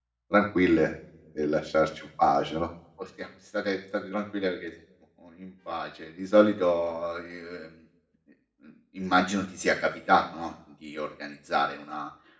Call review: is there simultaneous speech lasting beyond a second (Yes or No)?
No